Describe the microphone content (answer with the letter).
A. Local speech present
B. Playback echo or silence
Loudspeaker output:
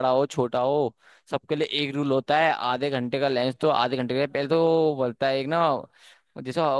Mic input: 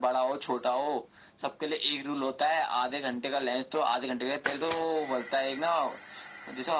B